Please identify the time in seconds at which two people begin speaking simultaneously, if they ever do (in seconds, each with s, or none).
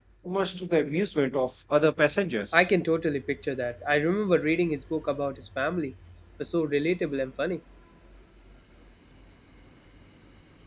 none